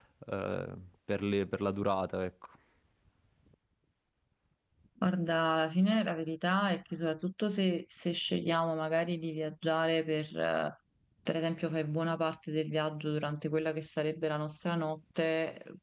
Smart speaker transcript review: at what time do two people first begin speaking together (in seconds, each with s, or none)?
none